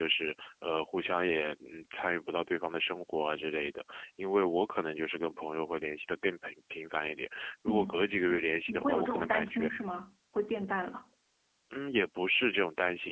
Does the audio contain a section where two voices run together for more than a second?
Yes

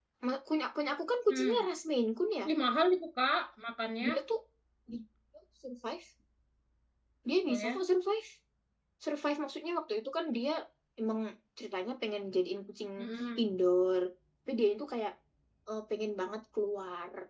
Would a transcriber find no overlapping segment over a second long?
Yes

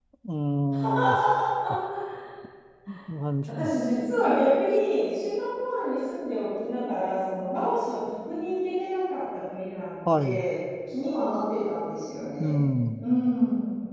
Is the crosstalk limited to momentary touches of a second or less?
Yes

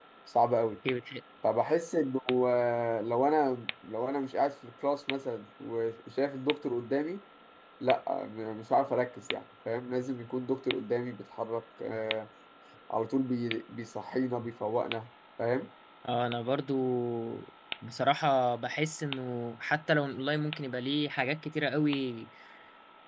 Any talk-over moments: No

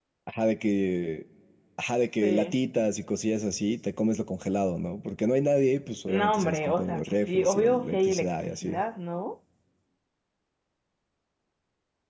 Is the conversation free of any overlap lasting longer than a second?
No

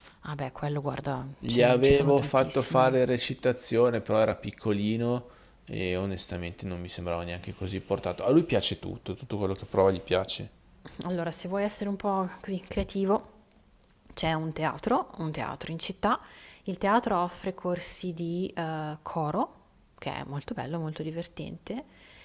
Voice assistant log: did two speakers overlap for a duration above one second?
Yes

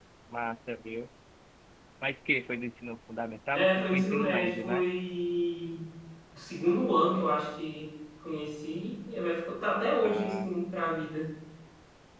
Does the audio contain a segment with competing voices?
Yes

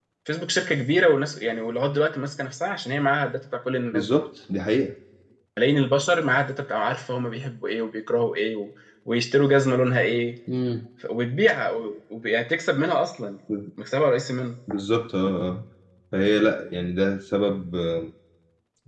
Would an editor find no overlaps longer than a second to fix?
Yes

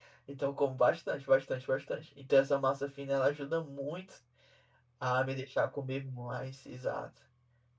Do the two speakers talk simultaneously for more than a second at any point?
No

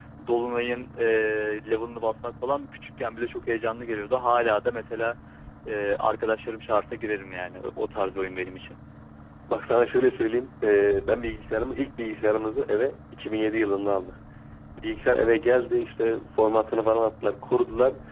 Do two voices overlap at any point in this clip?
No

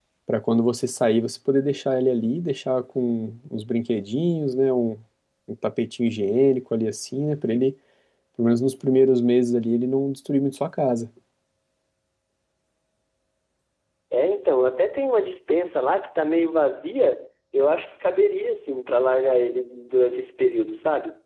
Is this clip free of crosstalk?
Yes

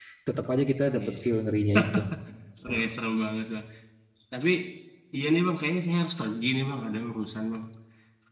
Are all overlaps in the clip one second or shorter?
Yes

